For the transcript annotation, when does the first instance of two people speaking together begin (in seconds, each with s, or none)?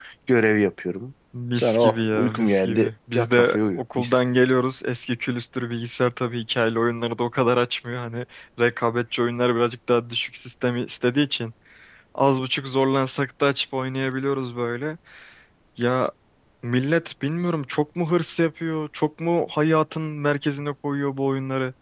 1.5 s